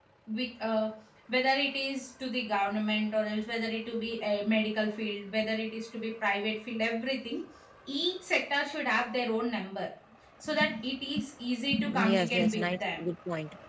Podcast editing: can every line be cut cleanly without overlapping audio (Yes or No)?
No